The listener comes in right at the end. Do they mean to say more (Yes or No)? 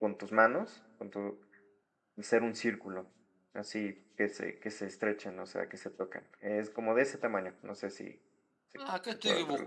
Yes